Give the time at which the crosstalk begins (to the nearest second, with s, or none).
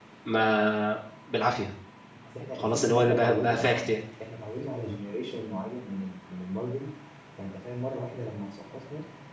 3 s